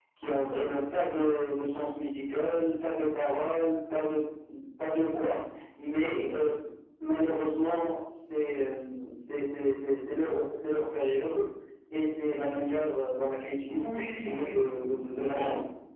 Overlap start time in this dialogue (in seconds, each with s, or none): 13.6 s